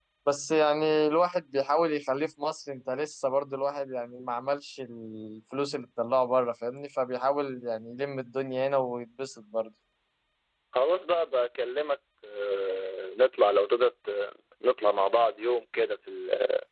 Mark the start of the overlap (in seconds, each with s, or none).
none